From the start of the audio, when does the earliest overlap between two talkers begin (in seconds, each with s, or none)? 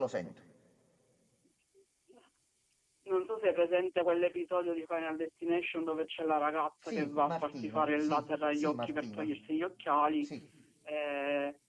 6.9 s